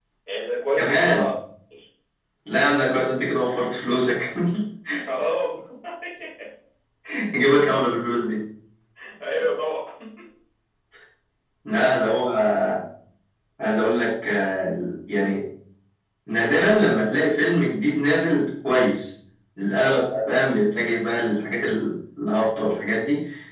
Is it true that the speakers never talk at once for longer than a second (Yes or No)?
Yes